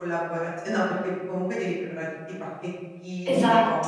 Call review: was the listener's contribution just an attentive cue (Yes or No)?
Yes